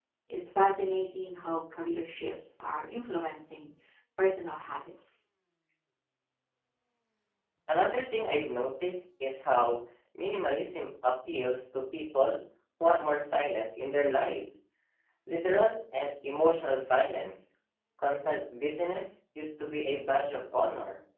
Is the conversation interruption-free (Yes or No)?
Yes